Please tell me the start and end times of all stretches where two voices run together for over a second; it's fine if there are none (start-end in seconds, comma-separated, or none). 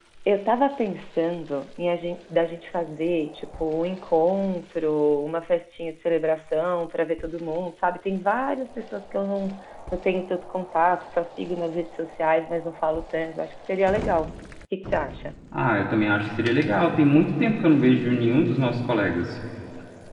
none